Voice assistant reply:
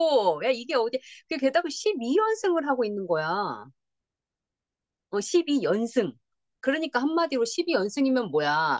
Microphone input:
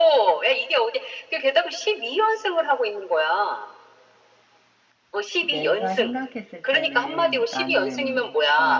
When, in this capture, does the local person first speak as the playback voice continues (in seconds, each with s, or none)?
5.4 s